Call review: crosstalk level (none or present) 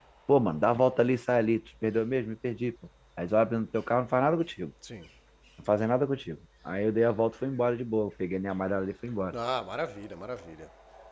none